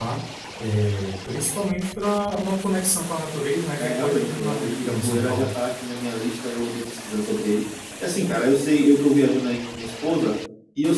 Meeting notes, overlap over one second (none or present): present